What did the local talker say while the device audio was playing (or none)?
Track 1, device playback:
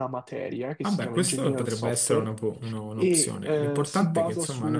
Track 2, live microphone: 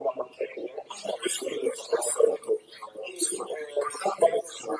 none